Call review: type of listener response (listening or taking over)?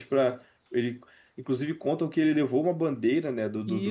taking over